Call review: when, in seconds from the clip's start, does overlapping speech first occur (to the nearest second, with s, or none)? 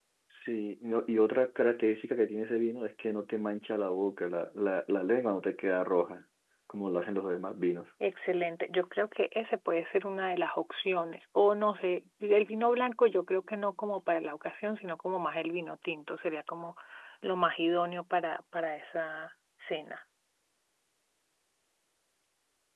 none